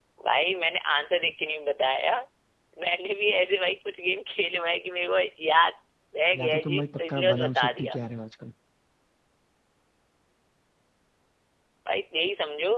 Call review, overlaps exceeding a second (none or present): present